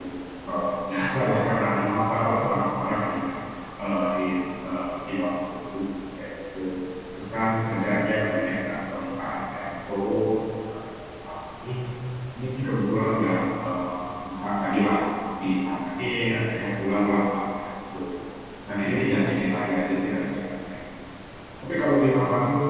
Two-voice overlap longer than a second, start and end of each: none

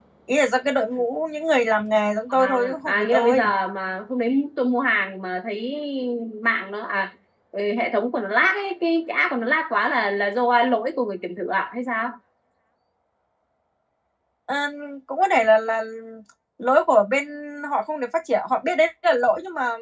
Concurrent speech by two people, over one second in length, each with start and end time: 2.3-3.5

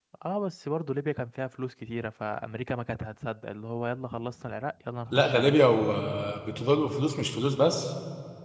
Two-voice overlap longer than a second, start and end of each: none

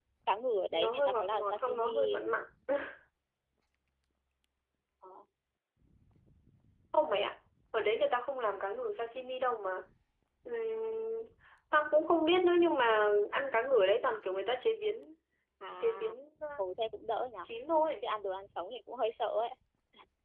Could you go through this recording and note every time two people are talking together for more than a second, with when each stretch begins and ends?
0.7-2.2

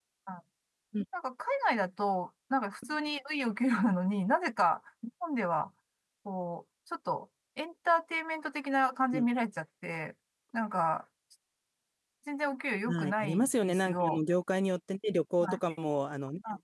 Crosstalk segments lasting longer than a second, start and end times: 12.9-14.2

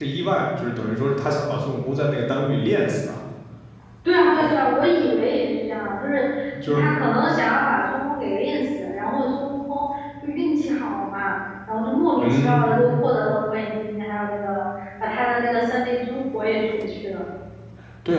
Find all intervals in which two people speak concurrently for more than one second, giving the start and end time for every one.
none

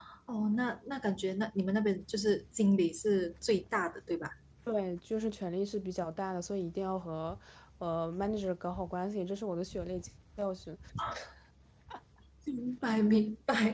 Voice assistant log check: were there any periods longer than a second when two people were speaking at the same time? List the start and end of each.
none

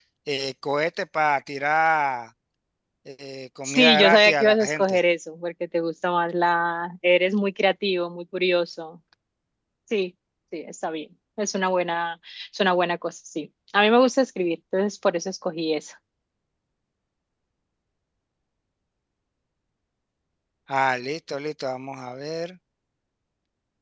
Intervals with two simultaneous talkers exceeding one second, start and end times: 3.6-5.0

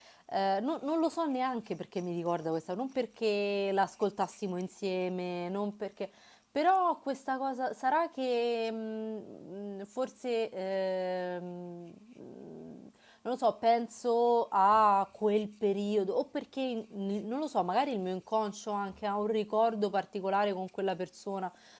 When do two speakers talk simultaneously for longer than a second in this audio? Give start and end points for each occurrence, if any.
none

